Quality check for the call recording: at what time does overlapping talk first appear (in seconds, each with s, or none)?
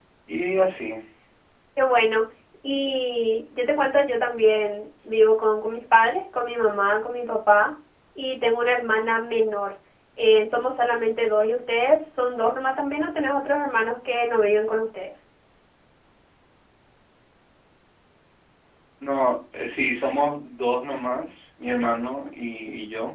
none